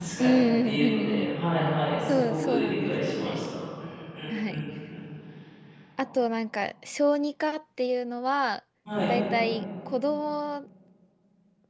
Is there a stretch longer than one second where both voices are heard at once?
Yes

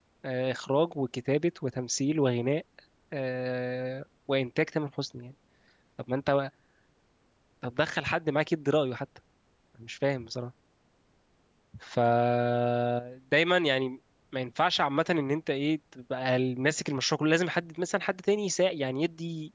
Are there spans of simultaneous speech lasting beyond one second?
No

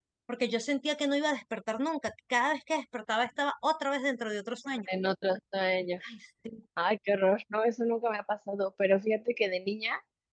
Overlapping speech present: No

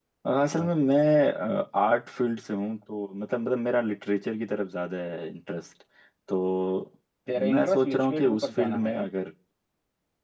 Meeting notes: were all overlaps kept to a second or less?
No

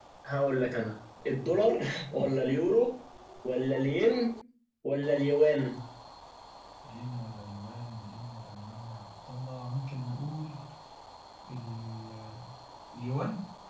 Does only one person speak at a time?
Yes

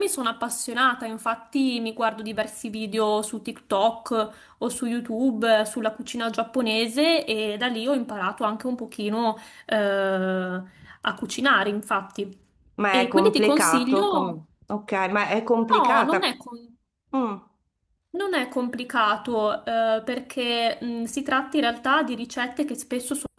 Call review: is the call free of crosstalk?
No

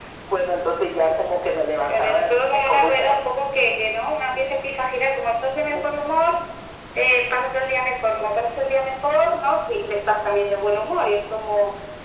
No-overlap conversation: No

